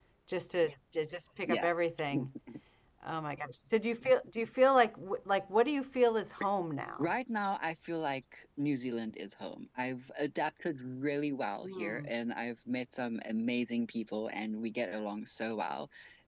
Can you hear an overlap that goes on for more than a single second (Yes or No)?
No